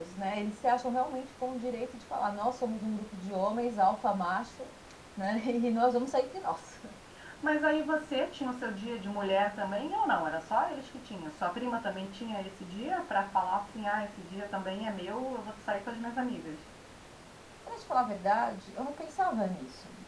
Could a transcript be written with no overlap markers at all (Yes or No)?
Yes